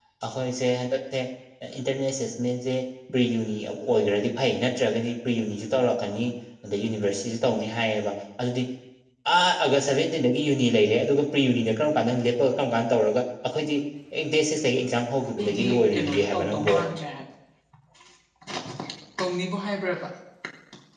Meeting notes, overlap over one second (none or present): present